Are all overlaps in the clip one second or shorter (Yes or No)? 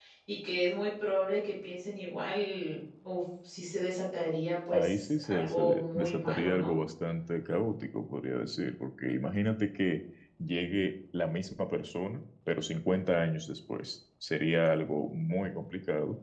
No